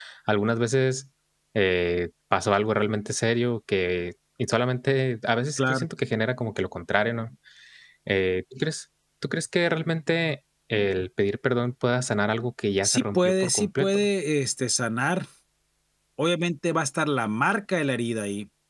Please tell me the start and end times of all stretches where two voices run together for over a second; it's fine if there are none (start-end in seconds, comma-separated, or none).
12.8-14.1